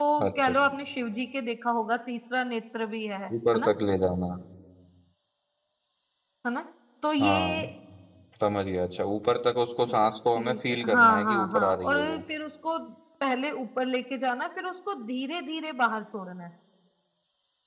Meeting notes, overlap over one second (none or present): present